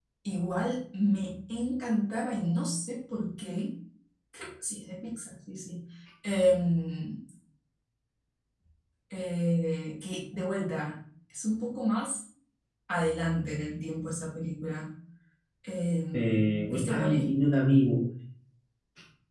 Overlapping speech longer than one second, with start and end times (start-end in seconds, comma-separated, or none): 16.1-17.3